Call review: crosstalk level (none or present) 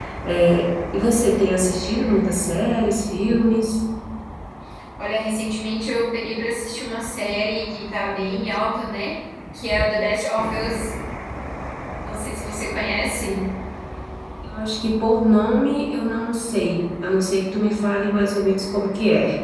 none